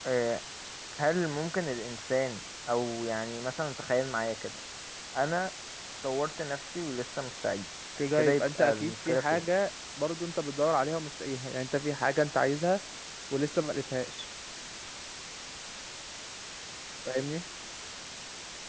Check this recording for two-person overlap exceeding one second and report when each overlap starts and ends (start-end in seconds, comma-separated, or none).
8.2-9.5